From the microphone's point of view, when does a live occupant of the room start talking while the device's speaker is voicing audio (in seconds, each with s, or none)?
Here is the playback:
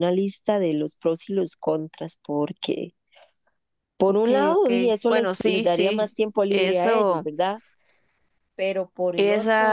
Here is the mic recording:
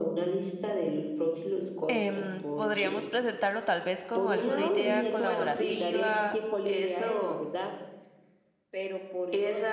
1.9 s